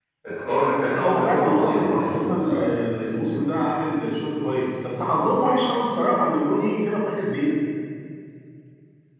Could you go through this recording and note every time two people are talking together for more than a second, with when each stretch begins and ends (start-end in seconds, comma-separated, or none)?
0.8-2.6